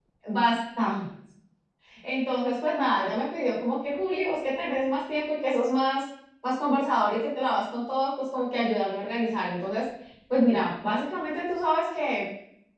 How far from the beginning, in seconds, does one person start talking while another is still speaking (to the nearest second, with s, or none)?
none